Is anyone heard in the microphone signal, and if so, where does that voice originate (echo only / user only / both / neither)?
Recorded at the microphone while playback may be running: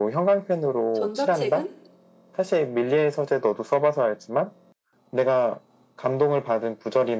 both